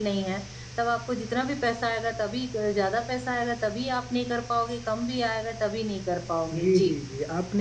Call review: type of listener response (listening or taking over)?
taking over